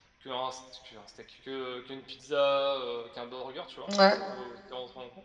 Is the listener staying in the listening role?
Yes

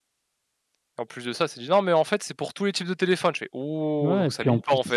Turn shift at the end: Yes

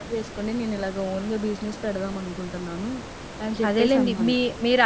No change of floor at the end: No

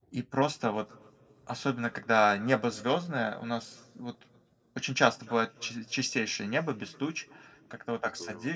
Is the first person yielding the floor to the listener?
No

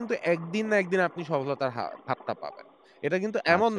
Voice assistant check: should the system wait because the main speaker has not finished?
Yes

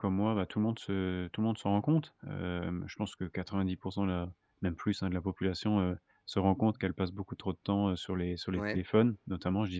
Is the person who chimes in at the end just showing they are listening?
Yes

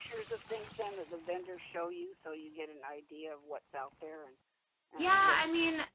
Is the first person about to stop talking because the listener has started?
Yes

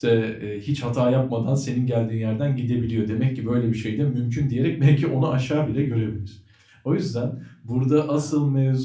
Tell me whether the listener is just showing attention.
Yes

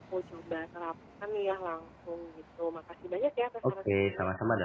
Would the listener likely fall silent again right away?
No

